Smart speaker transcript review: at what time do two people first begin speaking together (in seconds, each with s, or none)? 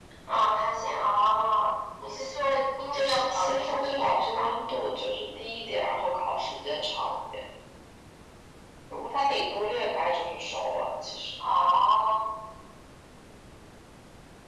2.9 s